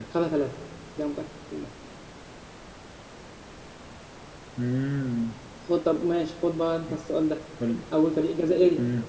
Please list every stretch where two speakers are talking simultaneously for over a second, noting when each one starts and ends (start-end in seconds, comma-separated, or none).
none